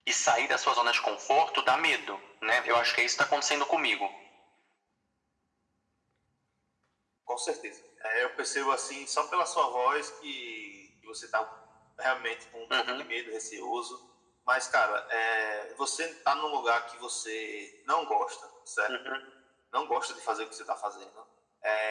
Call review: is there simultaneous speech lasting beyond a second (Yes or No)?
No